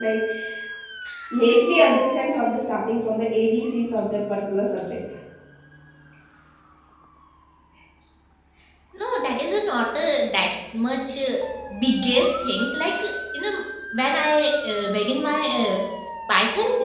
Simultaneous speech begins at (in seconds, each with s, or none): none